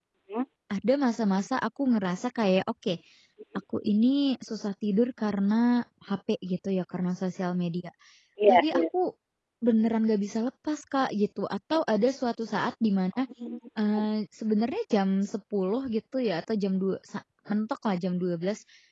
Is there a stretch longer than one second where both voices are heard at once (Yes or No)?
No